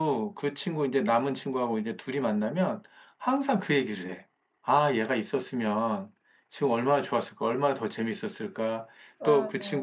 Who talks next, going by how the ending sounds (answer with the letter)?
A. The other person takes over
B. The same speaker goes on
B